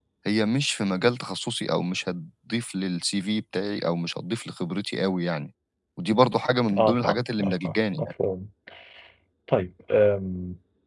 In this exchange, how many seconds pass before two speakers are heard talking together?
6.8 s

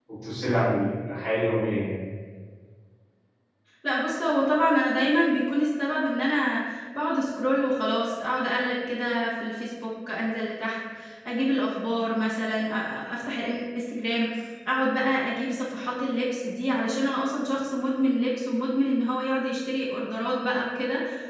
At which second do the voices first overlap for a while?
none

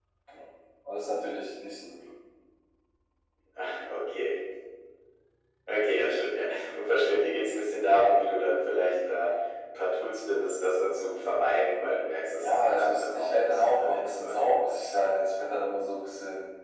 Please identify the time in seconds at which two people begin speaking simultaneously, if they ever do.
12.4 s

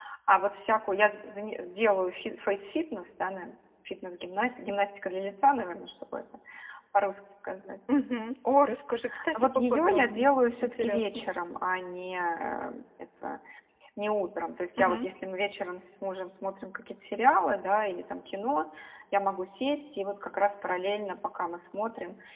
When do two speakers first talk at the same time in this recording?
9.3 s

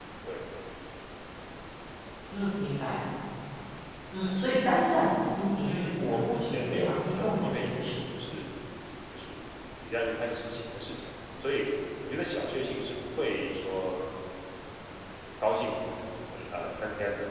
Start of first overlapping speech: 5.6 s

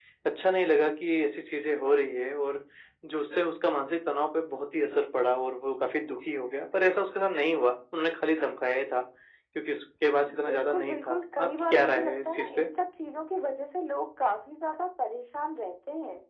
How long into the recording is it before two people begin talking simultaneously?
10.3 s

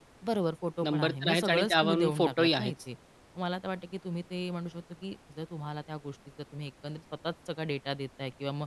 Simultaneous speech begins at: 0.8 s

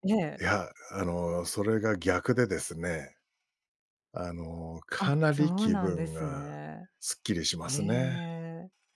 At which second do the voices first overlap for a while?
5.0 s

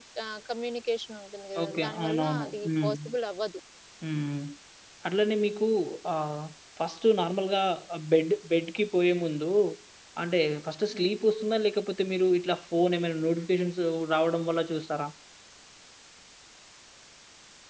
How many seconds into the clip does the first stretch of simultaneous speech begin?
1.6 s

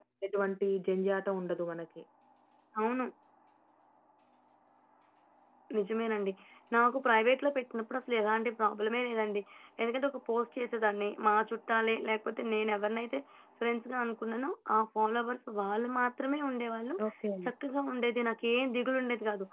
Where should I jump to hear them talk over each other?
none

